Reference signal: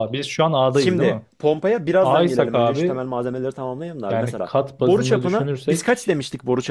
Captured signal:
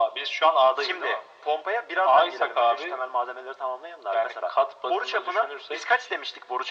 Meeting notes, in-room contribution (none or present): none